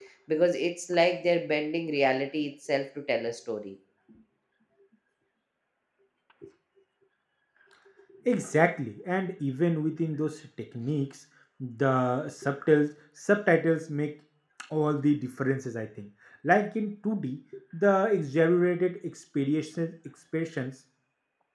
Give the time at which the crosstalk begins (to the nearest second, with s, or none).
none